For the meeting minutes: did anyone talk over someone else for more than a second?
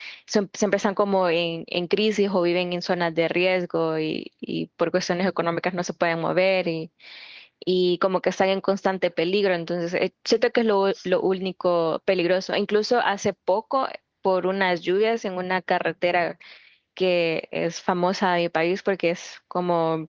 No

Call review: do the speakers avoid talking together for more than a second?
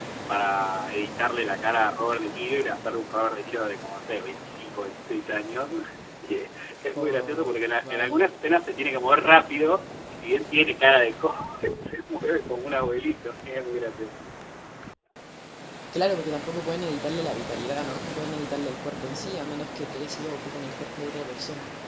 No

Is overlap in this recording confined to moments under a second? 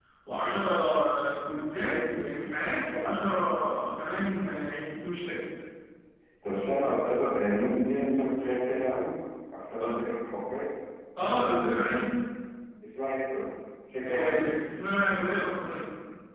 Yes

